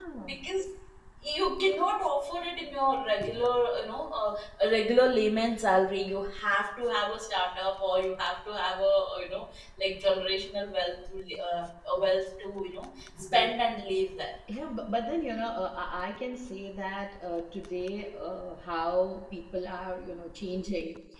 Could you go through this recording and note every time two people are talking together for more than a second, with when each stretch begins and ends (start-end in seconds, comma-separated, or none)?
none